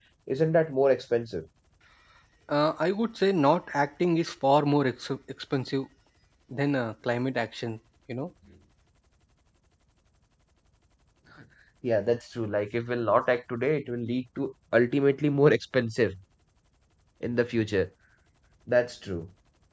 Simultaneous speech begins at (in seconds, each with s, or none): none